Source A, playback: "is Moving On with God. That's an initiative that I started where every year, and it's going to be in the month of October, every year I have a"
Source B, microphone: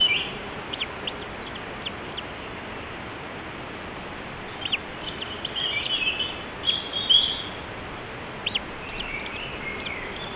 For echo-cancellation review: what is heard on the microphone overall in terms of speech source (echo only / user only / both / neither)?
neither